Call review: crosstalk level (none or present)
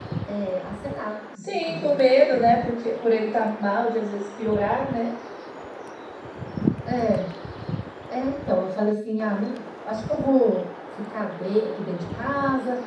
present